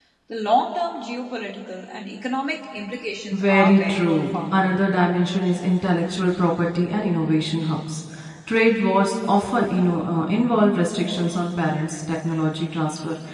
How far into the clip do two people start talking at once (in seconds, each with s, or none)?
3.3 s